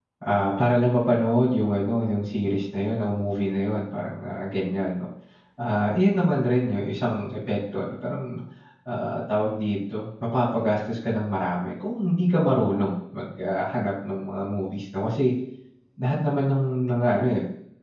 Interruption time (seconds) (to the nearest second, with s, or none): none